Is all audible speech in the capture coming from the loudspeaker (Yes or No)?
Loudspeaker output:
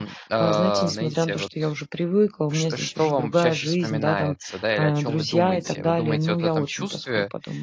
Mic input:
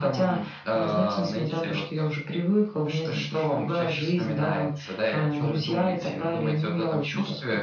Yes